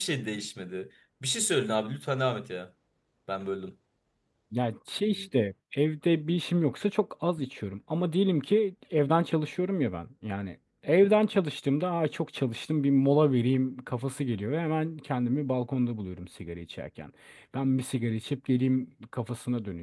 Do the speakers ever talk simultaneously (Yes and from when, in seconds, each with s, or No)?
No